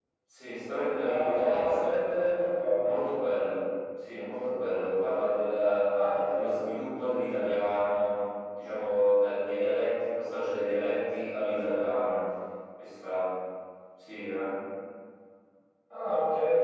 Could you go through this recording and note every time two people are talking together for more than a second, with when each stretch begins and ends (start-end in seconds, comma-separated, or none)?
1.0-2.2